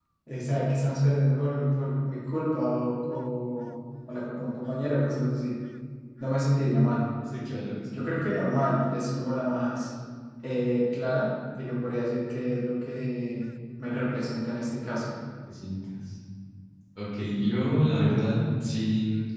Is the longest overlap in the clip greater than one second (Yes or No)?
No